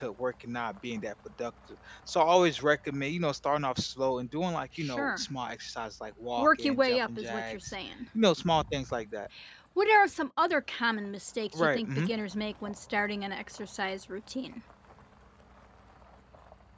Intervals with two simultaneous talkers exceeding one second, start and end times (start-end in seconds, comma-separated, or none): 6.4-7.7